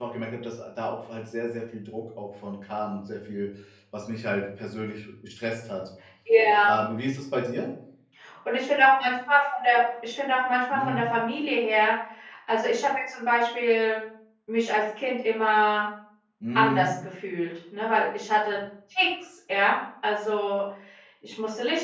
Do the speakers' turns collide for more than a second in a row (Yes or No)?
No